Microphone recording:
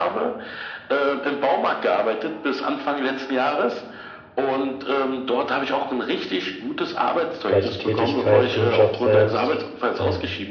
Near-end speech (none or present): present